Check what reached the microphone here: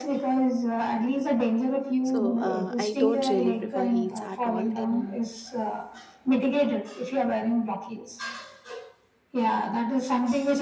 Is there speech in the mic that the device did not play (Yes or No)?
Yes